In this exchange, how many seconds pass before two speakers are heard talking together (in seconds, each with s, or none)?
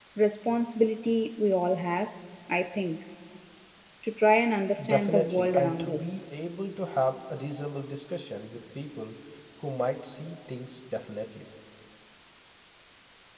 4.8 s